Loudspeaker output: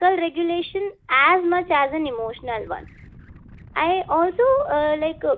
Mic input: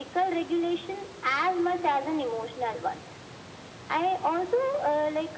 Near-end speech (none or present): none